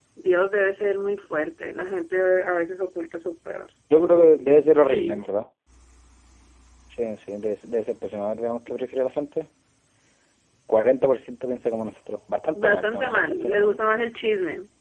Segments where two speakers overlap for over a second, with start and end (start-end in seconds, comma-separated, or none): 12.5-13.8